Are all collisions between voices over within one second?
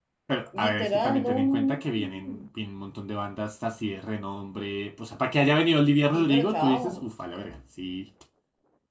No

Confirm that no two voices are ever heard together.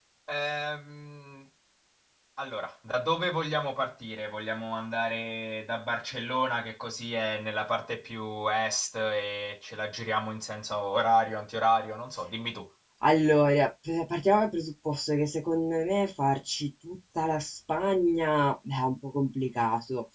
Yes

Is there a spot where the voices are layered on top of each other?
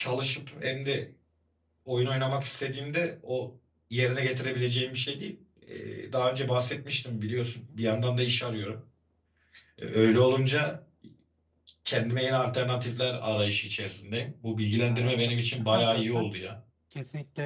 Yes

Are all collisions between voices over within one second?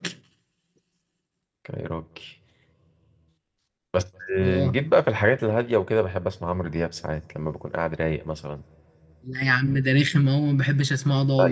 Yes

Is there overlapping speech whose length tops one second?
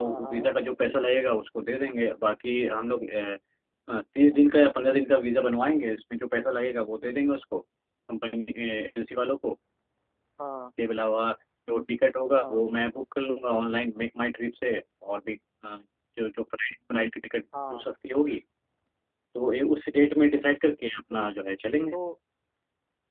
No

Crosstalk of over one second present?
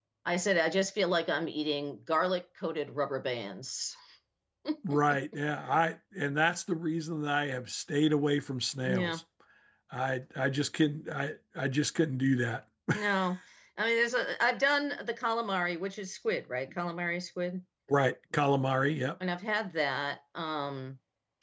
No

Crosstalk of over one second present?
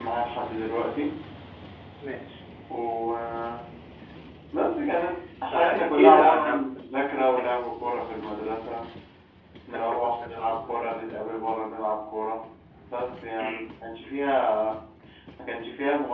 Yes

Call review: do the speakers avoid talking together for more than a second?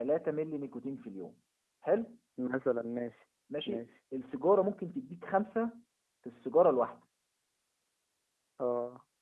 Yes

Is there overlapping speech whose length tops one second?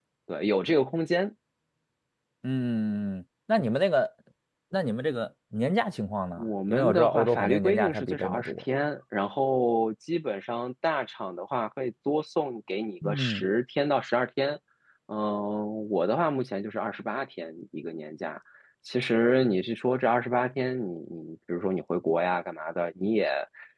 Yes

